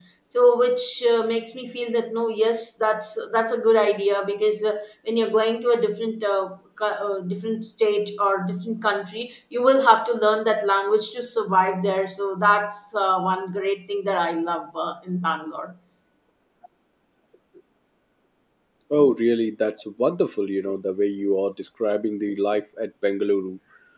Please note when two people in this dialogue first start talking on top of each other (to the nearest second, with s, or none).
none